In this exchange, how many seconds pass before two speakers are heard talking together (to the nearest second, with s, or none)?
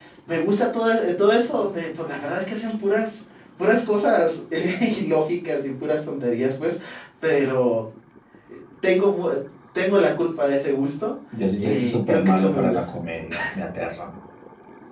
12 s